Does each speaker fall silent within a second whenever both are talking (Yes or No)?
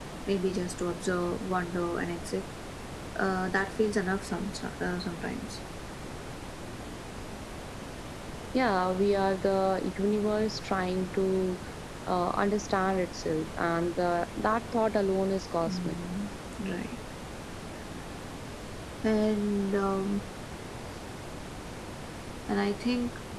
Yes